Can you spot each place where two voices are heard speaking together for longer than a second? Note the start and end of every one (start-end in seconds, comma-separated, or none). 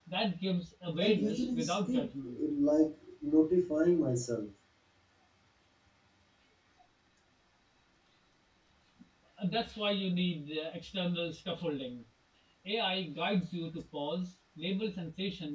1.0-2.4